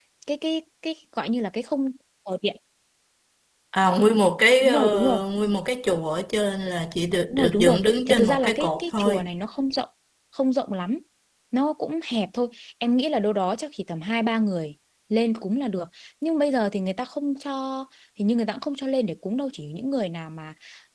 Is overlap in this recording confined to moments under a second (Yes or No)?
No